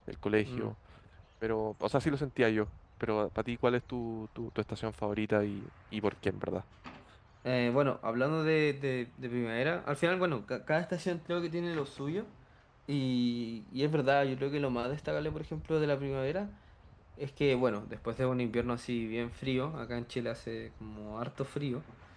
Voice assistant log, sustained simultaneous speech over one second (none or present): none